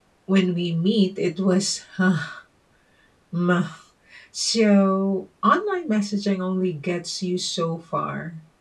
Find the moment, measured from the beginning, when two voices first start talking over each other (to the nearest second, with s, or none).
none